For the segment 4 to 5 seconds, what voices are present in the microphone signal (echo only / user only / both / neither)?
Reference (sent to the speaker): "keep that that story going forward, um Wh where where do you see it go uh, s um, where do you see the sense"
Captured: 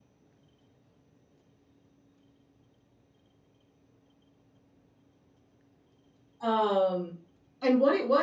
neither